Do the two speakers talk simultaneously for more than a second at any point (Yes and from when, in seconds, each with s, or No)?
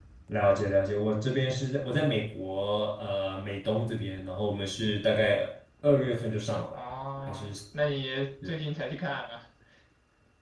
No